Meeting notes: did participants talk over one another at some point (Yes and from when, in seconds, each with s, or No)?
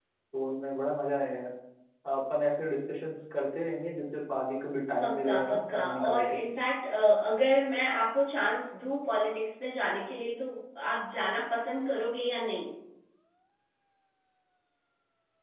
Yes, from 5.0 s